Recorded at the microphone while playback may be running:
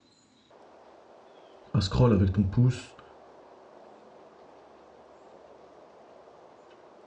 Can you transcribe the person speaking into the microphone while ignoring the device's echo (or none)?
à scroll avec ton pouce